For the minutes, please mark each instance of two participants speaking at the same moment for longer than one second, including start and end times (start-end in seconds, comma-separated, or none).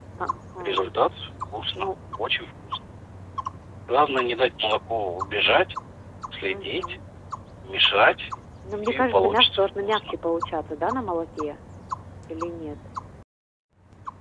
8.8-10.1